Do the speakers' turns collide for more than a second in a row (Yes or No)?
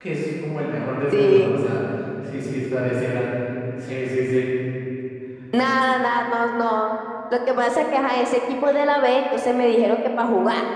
No